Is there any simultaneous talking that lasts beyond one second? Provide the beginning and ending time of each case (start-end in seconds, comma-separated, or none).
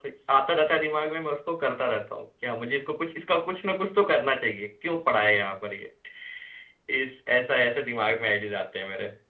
none